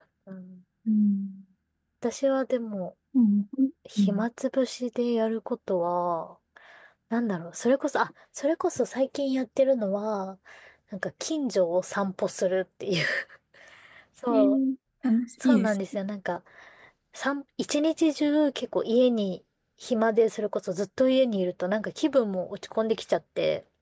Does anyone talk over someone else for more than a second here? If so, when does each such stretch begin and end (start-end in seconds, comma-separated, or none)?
none